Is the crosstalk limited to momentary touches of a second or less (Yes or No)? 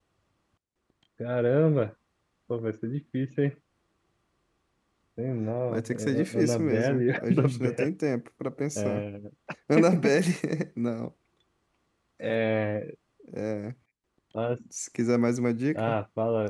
No